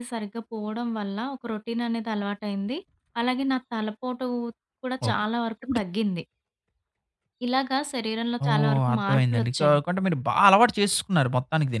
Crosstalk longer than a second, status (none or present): present